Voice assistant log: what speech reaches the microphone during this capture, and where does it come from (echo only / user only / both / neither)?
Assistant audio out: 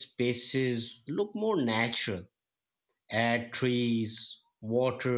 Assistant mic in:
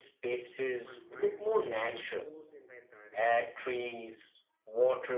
both